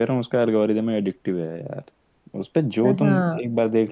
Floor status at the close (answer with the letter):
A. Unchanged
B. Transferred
A